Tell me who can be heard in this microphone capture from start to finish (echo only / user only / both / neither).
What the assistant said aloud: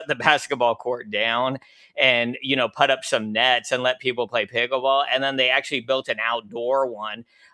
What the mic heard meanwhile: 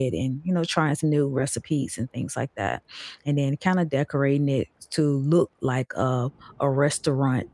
user only